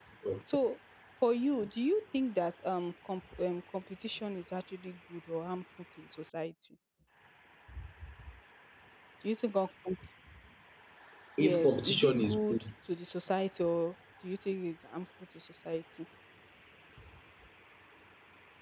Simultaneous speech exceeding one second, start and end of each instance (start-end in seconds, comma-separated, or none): 11.4-12.6